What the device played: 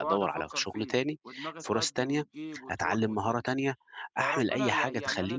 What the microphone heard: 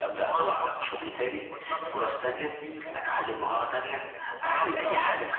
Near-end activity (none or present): present